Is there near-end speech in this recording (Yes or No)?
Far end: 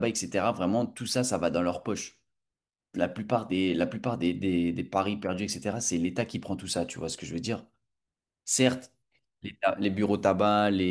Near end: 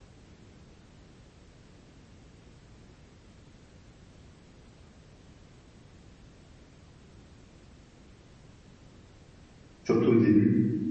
Yes